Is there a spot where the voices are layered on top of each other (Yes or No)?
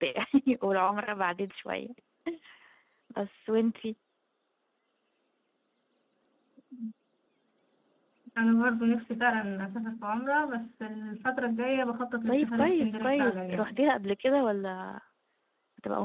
Yes